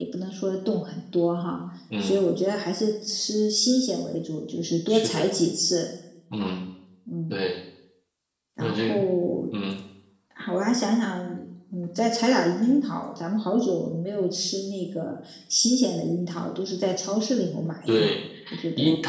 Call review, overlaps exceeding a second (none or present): none